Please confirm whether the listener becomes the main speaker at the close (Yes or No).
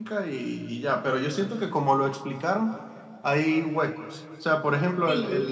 No